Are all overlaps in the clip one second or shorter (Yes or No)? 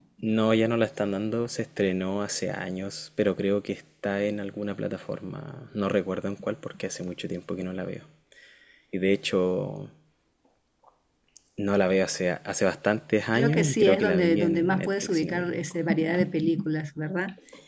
No